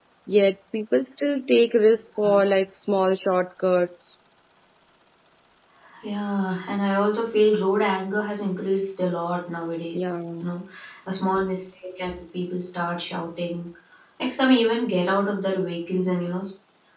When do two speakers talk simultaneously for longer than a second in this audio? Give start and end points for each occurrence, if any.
none

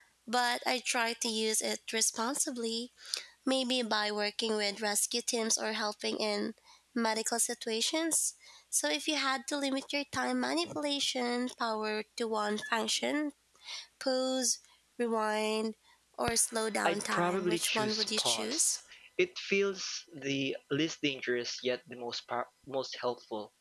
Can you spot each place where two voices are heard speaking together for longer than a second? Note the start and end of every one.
16.9-18.8

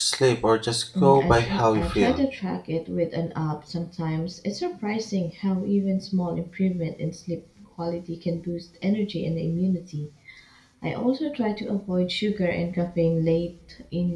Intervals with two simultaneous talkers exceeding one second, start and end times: 1.0-2.2

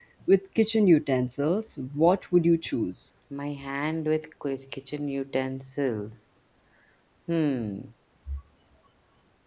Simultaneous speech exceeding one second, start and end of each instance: none

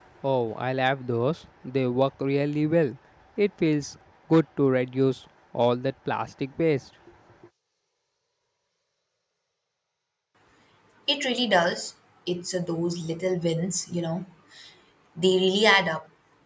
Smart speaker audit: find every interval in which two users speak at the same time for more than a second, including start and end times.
none

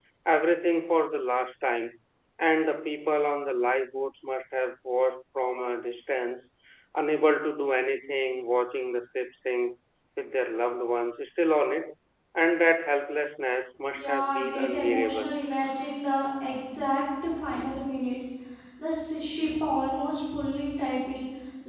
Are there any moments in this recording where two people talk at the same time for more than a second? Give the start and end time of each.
13.9-15.3

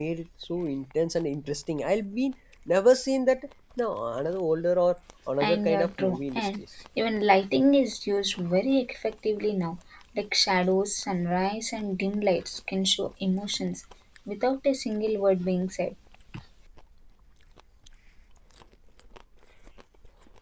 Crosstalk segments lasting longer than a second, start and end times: 5.4-6.6

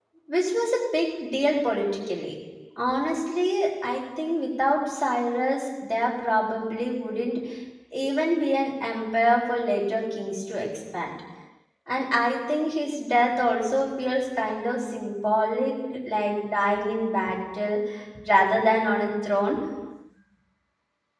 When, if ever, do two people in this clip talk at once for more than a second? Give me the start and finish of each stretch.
none

